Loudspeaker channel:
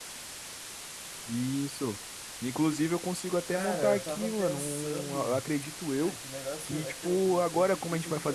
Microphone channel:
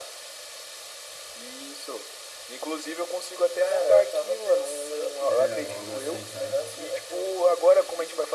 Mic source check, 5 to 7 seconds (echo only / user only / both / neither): both